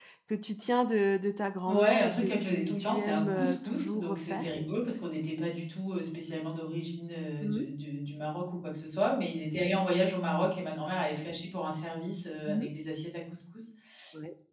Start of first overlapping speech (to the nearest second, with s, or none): 2 s